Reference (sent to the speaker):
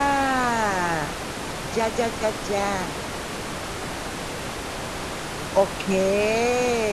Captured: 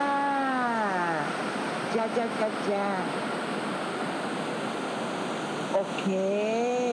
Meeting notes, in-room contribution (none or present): none